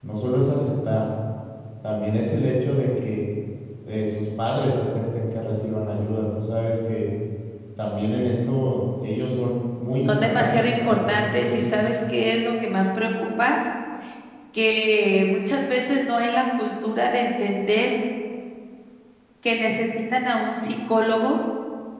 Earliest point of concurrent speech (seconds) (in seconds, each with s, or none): 10.1 s